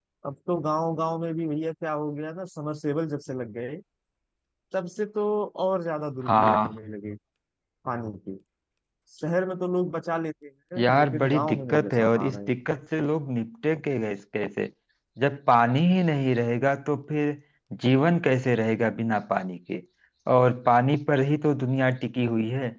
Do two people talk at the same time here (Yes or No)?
Yes